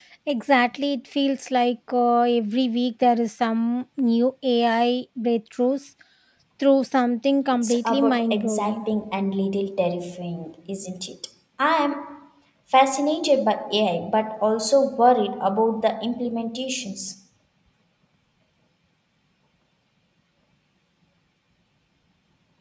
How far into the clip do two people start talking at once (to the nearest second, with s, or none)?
8 s